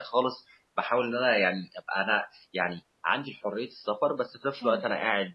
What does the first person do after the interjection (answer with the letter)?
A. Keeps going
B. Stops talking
A